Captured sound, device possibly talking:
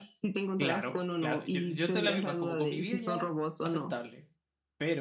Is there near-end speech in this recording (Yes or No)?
Yes